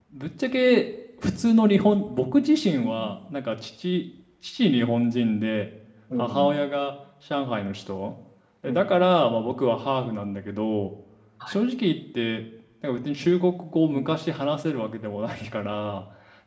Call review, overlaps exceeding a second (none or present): none